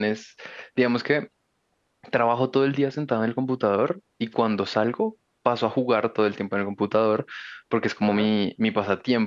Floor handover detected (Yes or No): No